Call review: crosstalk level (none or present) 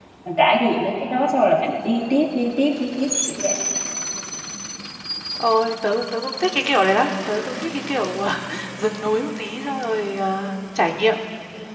none